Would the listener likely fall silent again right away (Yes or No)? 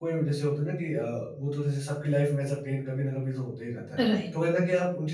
Yes